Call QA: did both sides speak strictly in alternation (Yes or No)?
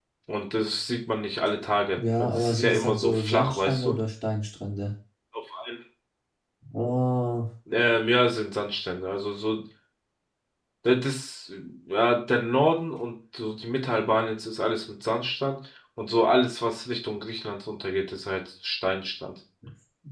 No